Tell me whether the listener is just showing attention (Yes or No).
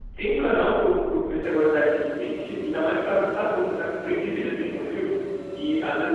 Yes